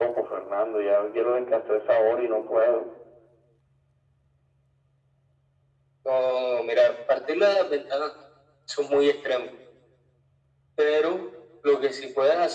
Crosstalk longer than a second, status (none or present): none